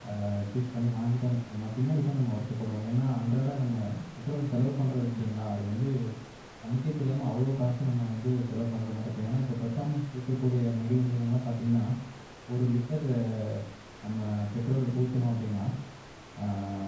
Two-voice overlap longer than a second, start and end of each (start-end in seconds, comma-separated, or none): none